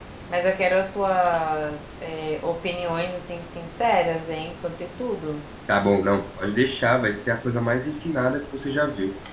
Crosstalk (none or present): none